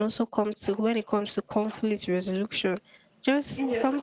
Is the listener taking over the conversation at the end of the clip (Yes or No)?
No